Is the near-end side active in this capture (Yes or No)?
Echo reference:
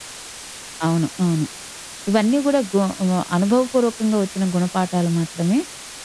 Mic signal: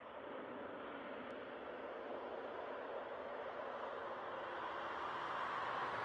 No